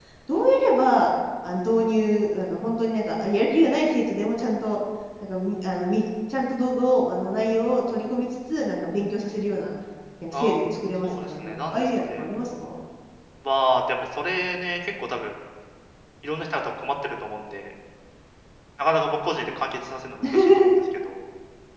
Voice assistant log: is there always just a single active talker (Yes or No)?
No